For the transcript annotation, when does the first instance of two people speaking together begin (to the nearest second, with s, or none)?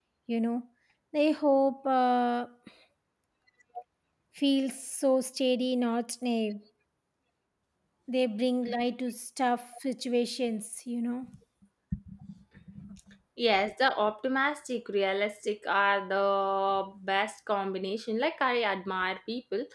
none